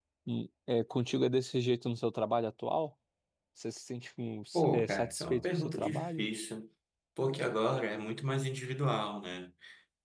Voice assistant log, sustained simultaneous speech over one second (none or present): present